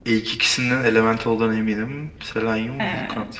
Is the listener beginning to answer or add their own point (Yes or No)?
No